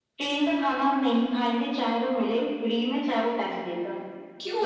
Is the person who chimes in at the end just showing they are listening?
No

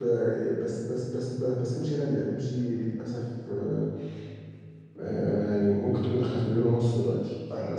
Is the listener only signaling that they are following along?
No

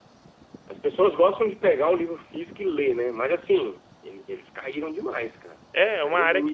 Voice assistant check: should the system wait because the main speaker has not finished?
No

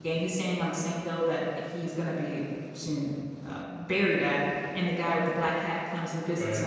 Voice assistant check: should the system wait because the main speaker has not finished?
Yes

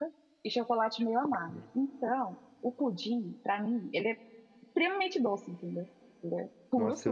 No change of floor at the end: No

